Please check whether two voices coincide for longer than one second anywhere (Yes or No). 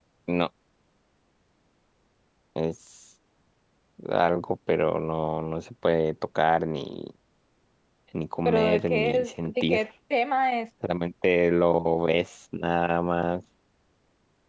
Yes